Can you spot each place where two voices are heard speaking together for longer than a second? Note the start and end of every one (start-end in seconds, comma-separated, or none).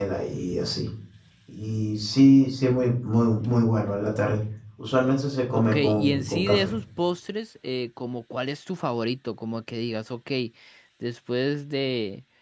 5.5-6.7